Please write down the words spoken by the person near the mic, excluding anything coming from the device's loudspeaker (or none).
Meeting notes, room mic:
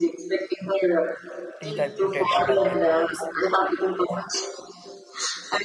teeth I put it under my pillows.